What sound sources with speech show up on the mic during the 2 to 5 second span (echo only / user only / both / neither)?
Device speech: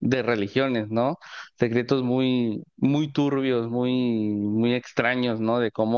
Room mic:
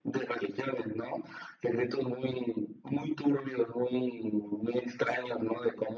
echo only